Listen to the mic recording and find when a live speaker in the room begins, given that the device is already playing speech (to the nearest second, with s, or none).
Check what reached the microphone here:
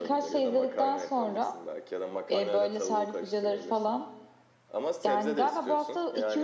none